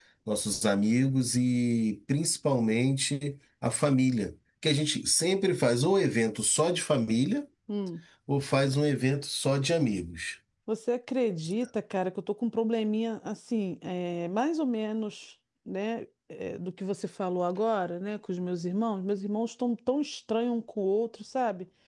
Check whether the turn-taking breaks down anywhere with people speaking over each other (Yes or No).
No